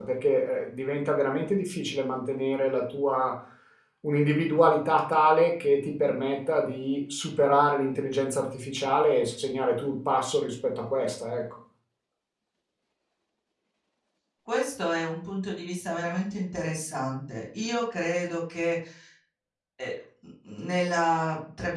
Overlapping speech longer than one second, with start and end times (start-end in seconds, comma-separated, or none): none